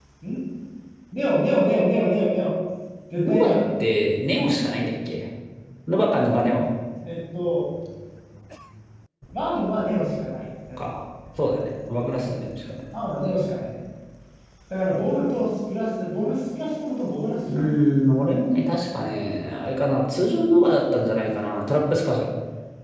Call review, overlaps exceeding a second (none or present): none